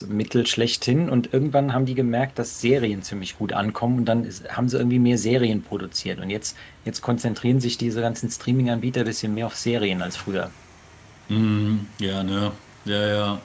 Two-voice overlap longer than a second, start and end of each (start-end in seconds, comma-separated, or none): none